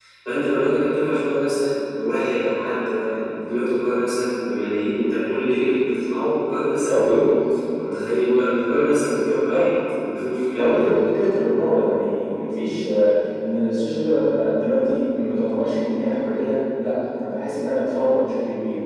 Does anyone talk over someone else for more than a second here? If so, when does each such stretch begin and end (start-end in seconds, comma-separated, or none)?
none